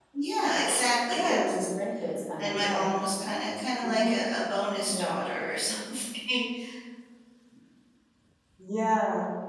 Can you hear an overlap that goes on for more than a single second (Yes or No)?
No